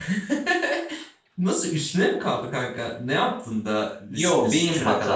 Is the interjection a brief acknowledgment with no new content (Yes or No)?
No